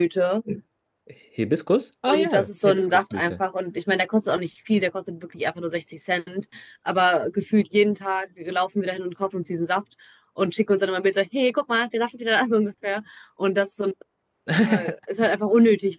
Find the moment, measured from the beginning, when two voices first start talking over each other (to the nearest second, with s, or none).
2 s